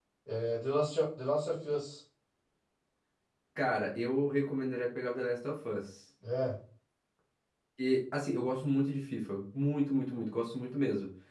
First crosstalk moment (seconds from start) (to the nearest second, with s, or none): none